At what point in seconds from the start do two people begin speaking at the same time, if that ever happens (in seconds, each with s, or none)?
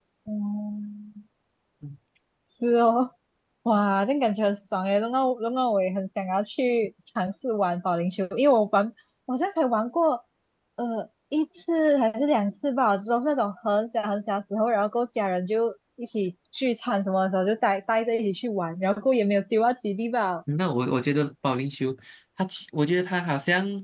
none